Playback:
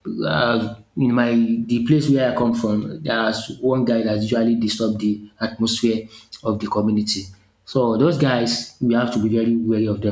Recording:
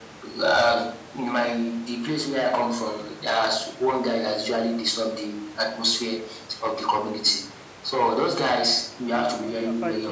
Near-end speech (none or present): present